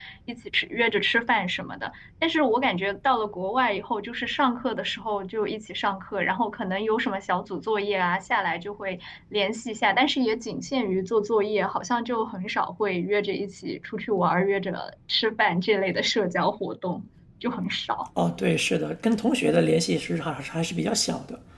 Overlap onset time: none

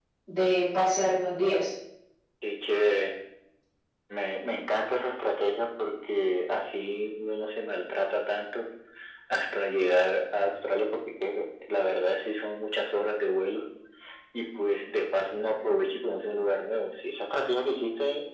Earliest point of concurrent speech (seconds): none

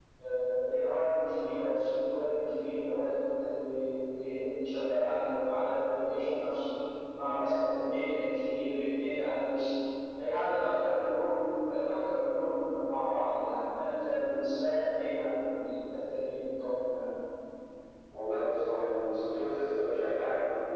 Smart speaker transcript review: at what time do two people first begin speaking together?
none

